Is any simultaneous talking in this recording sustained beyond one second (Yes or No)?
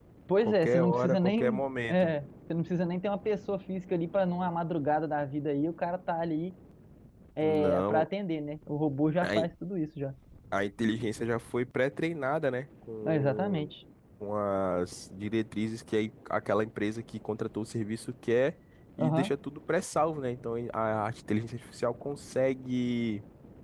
Yes